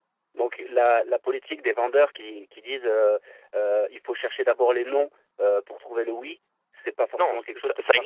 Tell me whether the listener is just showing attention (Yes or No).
No